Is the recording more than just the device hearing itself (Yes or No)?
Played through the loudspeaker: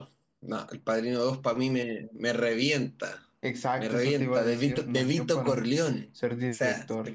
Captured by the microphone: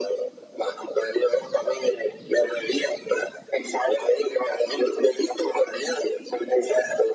No